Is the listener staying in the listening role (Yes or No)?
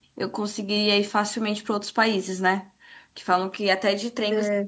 Yes